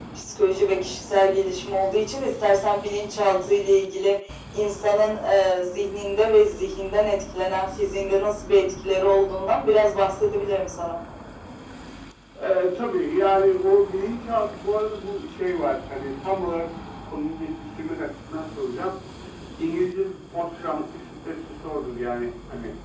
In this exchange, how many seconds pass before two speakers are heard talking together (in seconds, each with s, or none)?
none